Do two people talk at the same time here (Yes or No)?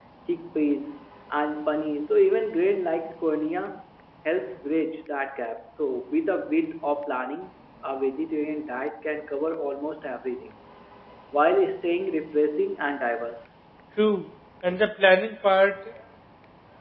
No